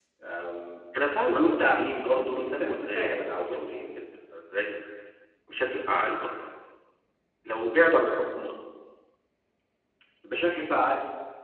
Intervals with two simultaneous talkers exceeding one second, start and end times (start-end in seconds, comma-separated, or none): 1.2-3.8